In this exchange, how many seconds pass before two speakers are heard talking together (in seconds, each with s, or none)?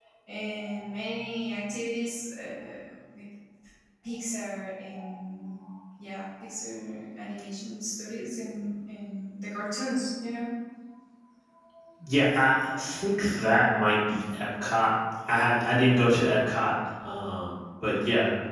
none